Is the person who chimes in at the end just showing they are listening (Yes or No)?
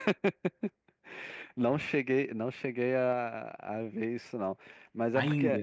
Yes